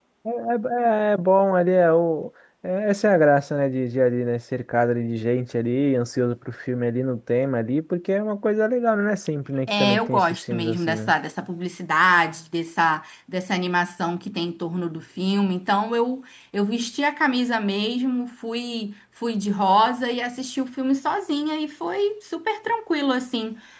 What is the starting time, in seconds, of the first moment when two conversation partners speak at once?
9.7 s

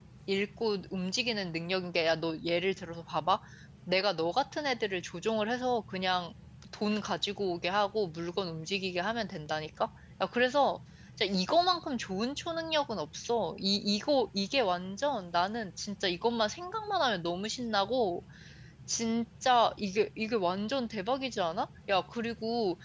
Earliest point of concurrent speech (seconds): none

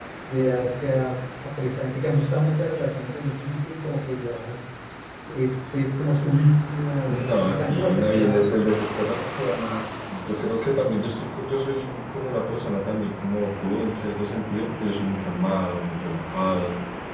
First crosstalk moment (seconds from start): 7.1 s

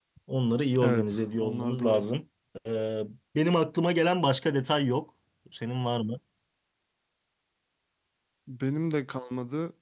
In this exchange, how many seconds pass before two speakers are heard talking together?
0.8 s

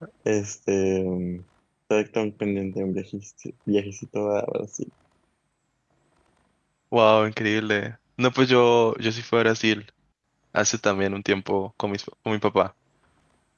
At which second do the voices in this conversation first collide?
none

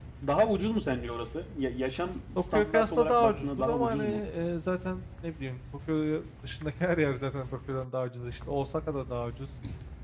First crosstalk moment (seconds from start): 2.5 s

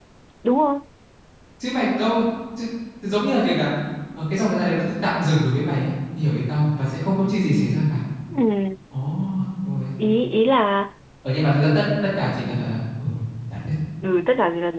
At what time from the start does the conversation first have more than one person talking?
none

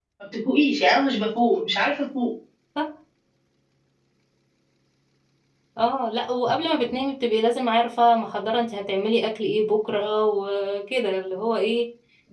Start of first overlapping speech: none

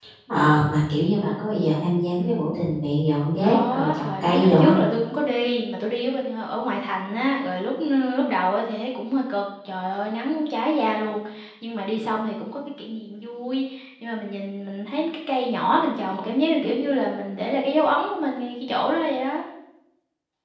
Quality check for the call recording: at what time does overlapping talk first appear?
3.4 s

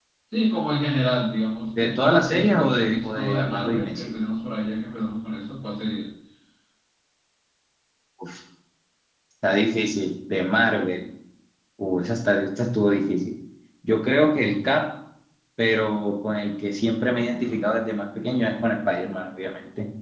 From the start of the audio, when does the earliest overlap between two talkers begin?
1.8 s

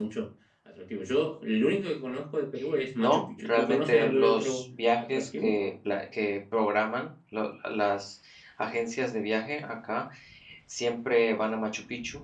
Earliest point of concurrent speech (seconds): 3.0 s

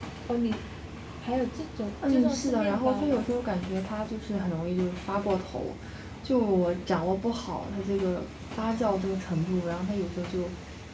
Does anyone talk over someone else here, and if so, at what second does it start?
2.1 s

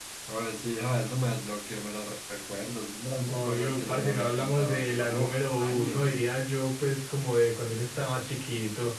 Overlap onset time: 3.3 s

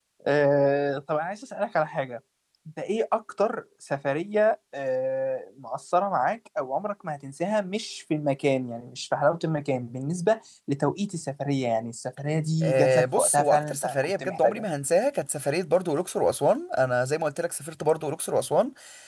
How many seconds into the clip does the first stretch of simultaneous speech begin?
12.6 s

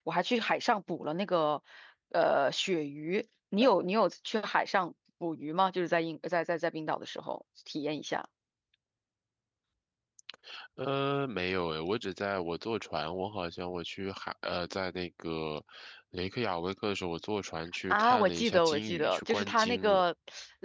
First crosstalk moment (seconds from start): 17.9 s

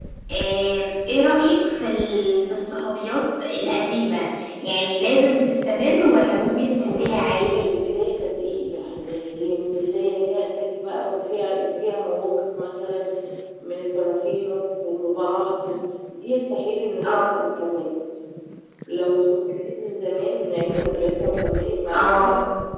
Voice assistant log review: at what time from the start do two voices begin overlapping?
6.5 s

